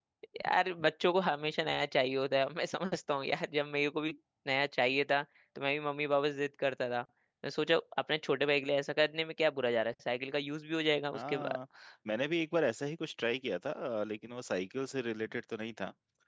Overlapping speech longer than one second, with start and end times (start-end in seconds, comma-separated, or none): none